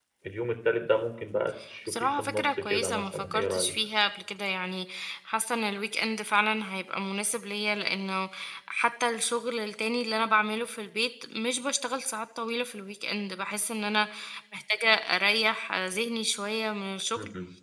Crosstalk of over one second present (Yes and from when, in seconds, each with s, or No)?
Yes, from 1.9 s